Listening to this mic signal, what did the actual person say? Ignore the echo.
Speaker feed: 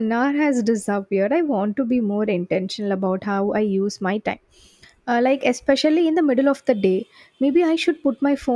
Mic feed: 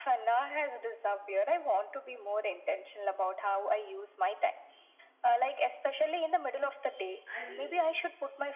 I think

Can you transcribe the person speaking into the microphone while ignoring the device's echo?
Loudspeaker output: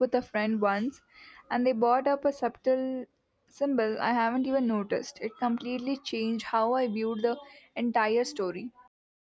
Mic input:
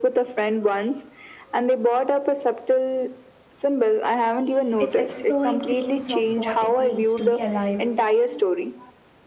It's exploring themes of what it means to be alive.

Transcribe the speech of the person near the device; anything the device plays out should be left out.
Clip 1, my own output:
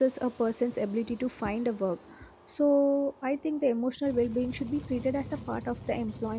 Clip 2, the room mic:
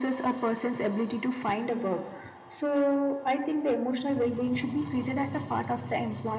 none

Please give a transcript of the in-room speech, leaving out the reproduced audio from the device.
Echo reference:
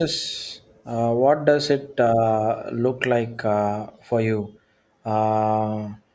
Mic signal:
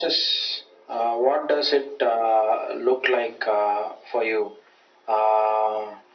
none

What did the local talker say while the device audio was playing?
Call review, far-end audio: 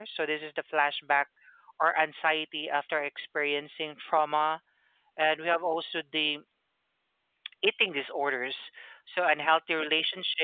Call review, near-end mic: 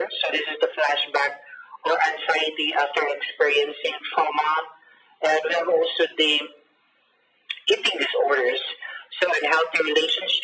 none

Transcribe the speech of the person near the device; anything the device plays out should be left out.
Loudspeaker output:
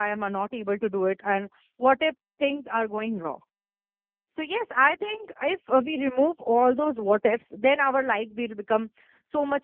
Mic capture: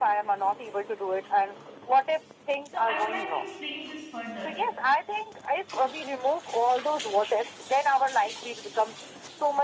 So I would like to explain this further

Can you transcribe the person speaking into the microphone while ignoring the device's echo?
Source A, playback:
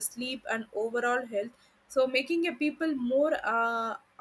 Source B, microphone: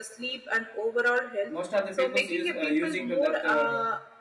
most of the people's use uh, using to that uh,

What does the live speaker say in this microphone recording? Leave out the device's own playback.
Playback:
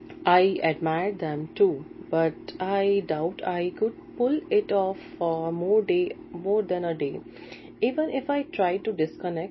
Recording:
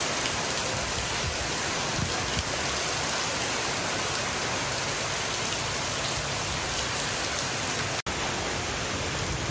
none

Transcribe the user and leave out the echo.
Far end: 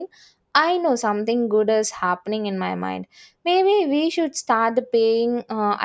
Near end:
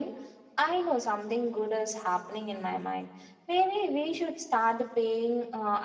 none

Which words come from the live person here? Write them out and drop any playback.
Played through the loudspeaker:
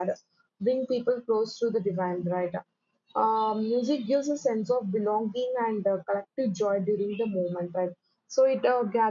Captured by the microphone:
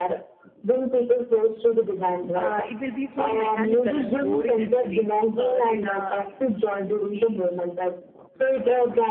uh, it will be so mechanical and boring actually. Uh, then uh,

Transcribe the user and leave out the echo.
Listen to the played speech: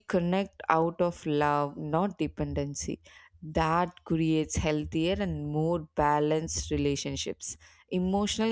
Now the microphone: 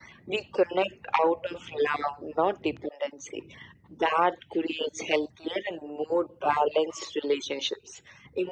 none

